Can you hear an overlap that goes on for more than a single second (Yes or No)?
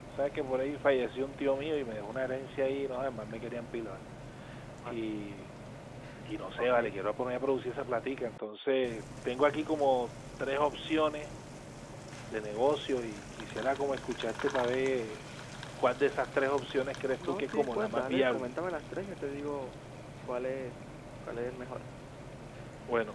Yes